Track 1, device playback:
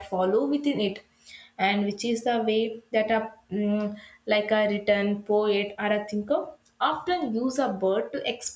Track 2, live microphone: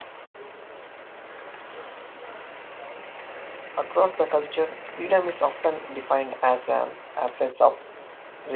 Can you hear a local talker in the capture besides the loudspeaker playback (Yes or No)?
Yes